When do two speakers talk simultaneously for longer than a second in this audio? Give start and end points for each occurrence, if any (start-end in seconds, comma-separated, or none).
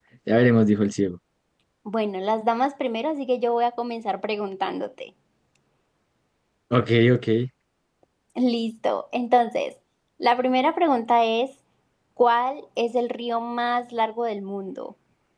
none